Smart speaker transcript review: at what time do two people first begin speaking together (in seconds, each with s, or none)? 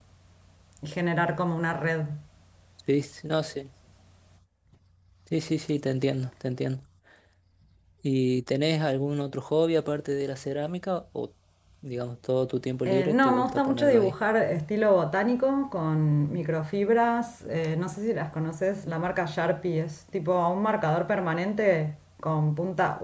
12.9 s